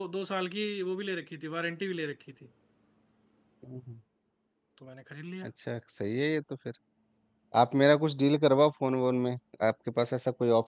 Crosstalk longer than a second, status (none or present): none